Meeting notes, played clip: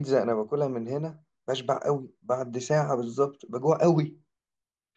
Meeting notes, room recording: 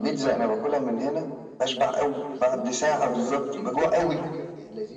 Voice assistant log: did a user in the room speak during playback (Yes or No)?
Yes